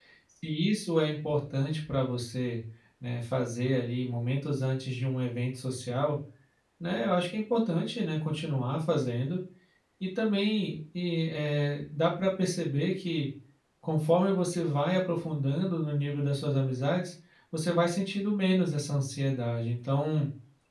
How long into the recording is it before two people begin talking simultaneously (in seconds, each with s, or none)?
none